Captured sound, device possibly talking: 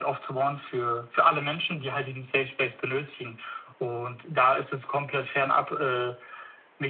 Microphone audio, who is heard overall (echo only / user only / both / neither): echo only